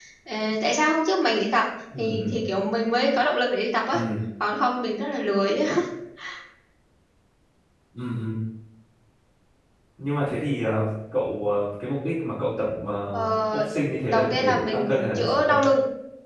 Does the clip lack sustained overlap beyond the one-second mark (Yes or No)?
No